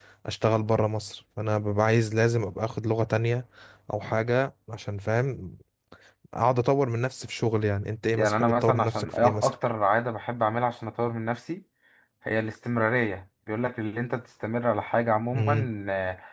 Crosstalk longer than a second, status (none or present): present